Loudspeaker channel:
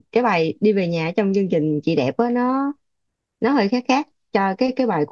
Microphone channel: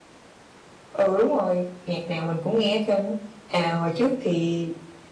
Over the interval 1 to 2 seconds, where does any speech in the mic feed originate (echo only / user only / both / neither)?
user only